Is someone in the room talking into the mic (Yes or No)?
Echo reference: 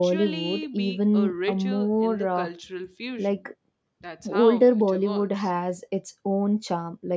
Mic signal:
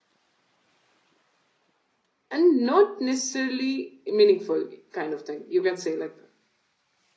Yes